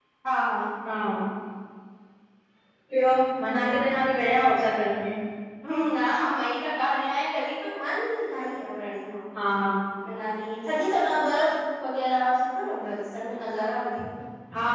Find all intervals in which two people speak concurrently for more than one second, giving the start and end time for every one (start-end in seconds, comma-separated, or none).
none